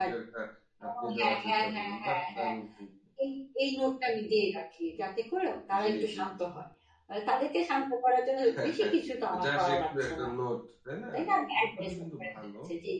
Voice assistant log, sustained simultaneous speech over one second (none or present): present